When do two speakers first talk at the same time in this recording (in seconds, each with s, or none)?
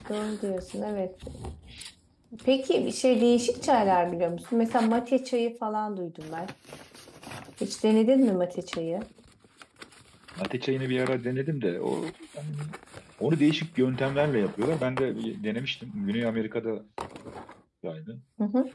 none